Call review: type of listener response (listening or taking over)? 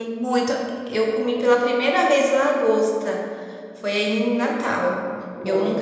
listening